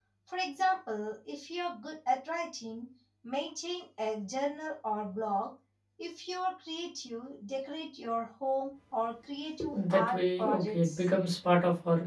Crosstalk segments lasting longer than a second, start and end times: 9.7-11.1

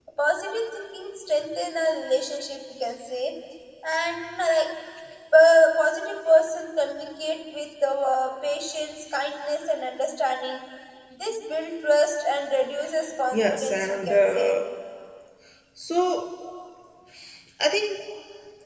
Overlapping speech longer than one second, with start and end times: 13.3-14.6

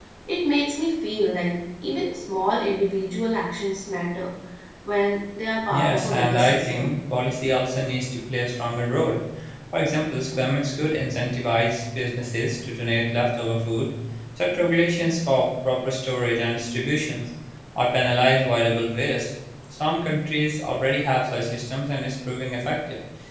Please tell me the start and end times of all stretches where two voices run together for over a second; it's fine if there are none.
5.7-7.0

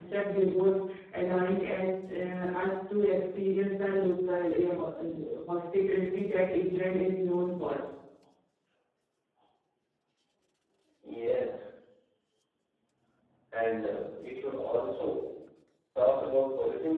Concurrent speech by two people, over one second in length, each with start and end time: none

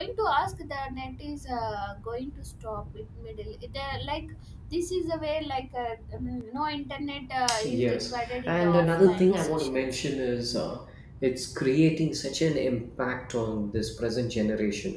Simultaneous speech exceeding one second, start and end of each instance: 7.6-10.0

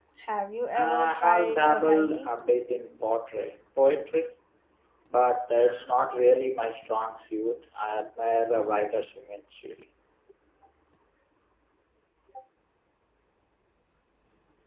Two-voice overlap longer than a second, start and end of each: 0.7-2.3

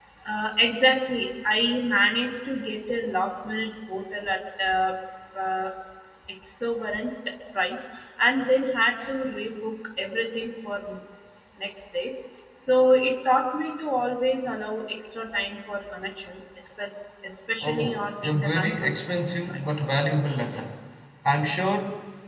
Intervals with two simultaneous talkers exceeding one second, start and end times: 17.6-18.9

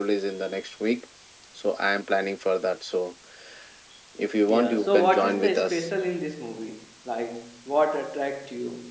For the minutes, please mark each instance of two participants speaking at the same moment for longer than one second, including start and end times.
4.5-5.9

